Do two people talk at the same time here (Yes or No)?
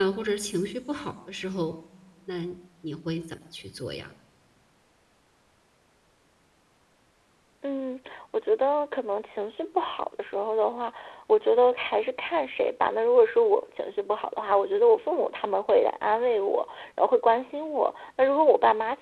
No